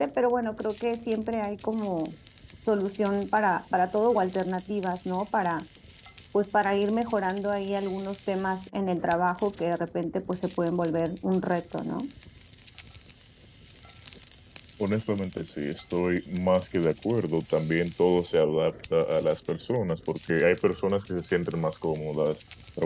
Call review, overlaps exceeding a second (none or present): none